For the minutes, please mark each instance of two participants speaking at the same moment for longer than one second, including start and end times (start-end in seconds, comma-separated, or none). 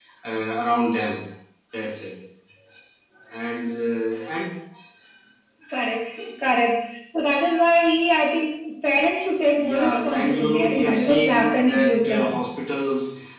9.5-12.4